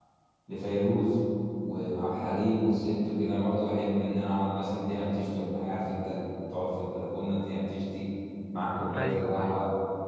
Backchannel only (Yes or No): Yes